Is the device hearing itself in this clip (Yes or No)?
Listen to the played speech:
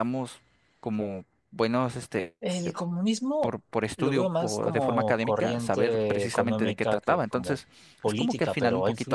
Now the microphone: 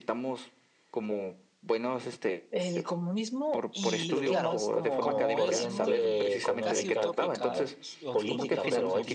Yes